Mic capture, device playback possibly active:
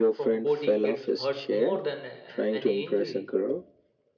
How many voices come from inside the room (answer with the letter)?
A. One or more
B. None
A